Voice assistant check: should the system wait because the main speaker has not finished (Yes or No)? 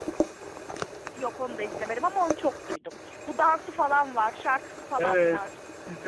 No